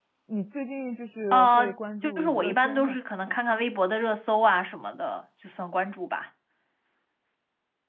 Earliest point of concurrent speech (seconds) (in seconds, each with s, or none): 1.3 s